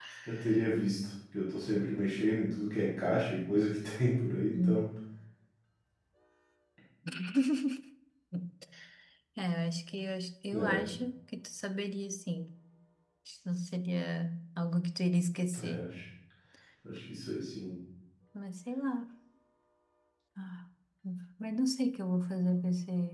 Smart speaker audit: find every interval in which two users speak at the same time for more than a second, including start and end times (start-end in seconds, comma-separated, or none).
none